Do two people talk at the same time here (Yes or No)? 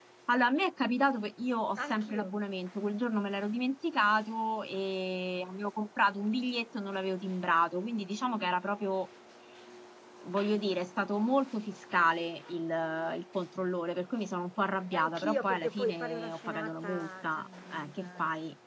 Yes